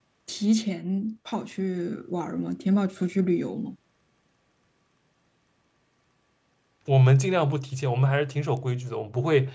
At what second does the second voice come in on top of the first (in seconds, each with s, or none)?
none